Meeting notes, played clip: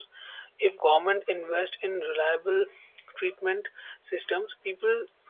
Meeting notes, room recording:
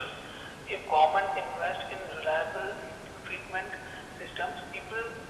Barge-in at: none

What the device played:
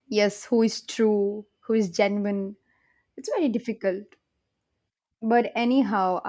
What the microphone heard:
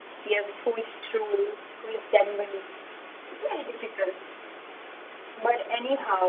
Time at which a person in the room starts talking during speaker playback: none

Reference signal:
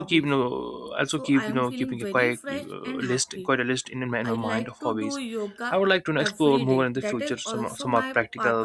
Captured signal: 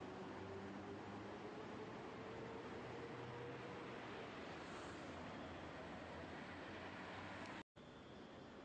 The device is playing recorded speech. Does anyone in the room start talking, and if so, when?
none

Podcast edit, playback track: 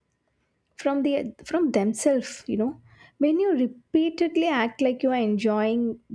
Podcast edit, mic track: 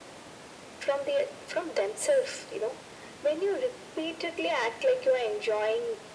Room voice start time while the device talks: none

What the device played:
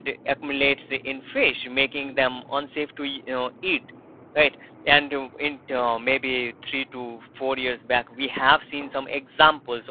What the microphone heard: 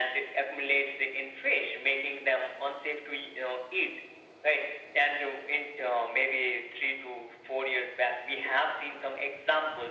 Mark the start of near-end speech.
none

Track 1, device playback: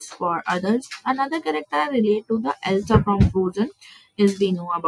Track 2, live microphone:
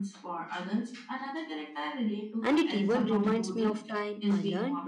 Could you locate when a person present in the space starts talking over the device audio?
2.4 s

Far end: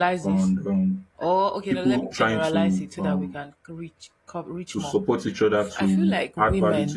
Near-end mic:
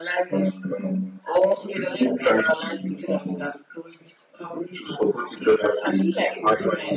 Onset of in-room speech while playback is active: none

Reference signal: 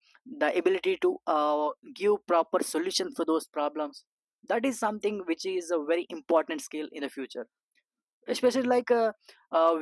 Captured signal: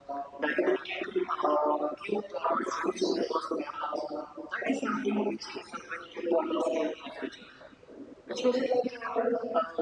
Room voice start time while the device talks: none

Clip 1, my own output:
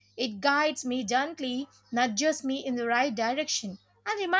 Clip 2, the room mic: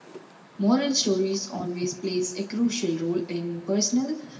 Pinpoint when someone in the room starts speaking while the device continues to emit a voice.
0.6 s

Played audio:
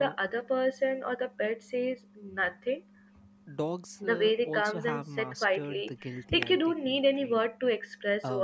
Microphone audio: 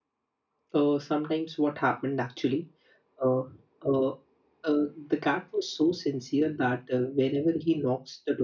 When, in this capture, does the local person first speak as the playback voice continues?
0.7 s

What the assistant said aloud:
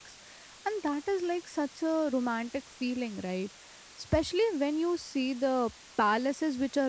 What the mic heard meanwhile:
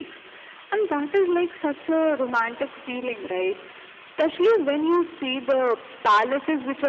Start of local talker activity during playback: none

